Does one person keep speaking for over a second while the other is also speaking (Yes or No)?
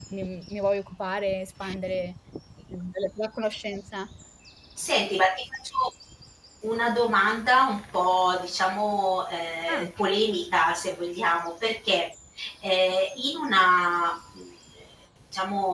No